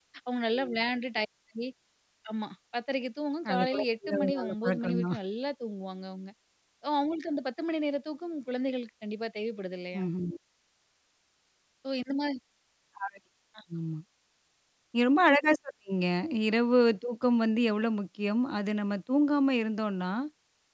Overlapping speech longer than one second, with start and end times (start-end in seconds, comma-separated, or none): 3.5-5.2